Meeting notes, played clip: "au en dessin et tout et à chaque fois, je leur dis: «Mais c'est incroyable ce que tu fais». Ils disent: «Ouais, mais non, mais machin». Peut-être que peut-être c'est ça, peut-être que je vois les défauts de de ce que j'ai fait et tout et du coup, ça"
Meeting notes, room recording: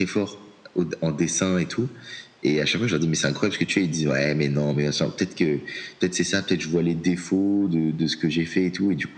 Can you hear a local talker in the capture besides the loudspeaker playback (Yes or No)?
No